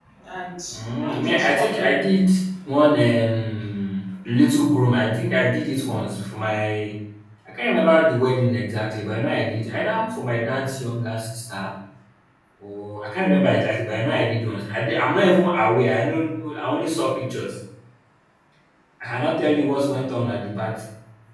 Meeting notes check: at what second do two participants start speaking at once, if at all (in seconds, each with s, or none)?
0.7 s